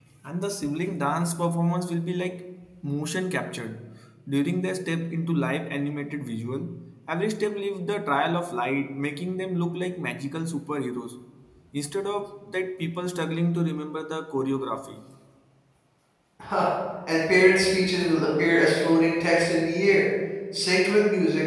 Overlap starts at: none

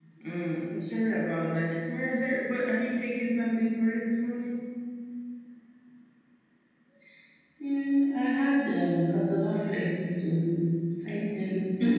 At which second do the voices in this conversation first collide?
none

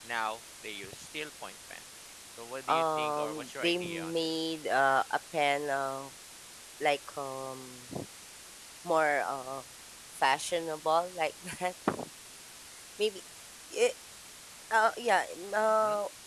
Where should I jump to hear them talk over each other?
3 s

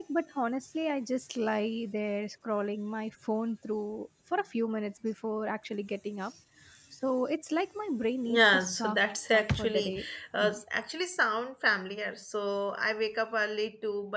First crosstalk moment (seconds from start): 8 s

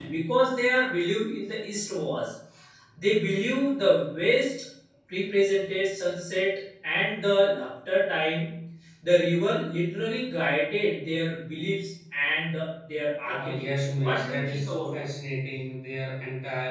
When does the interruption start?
13 s

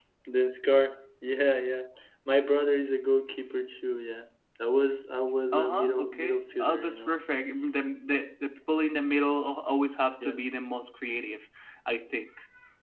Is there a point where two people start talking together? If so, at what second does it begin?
6 s

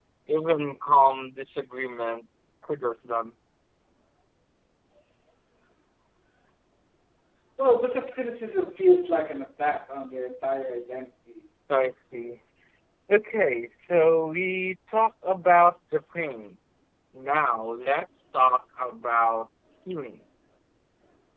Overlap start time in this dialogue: none

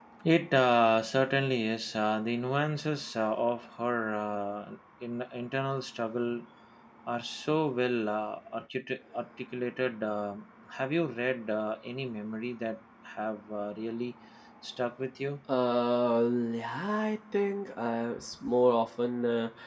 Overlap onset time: none

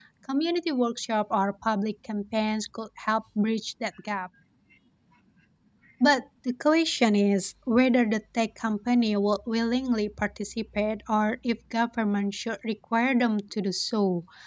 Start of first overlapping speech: none

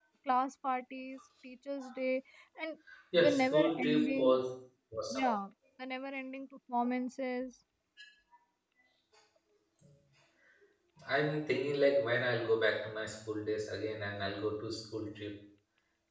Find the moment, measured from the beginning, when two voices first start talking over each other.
3 s

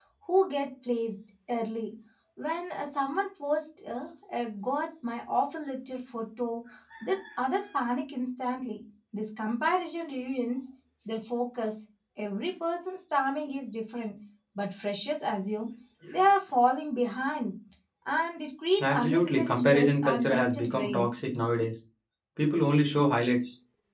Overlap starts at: 19 s

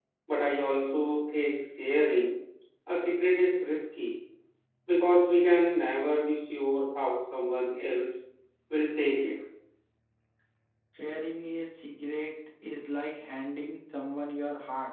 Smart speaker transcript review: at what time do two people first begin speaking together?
none

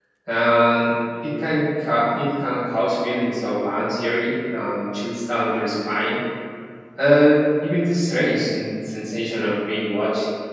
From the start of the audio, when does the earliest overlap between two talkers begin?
none

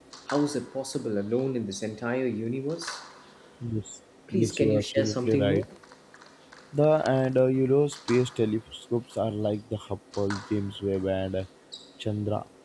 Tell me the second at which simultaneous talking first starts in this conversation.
4 s

